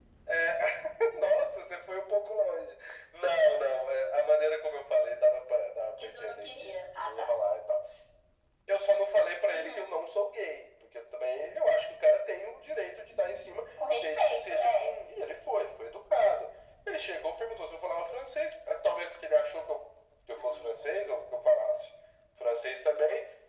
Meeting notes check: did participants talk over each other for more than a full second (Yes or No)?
Yes